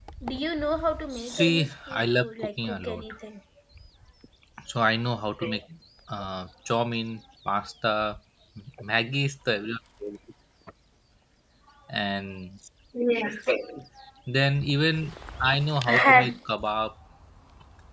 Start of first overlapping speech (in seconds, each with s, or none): 1.1 s